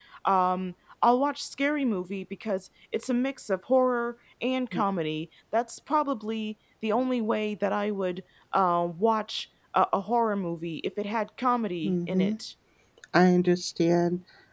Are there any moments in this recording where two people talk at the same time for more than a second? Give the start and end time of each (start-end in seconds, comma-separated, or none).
none